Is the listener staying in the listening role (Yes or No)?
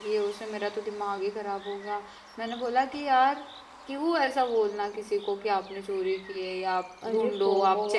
No